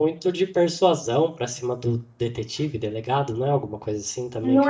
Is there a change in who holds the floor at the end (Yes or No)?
Yes